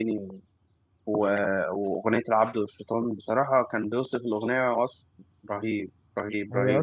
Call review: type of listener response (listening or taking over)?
taking over